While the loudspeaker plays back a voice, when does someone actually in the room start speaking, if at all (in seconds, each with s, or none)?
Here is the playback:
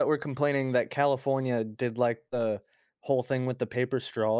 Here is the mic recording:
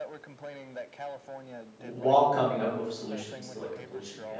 1.8 s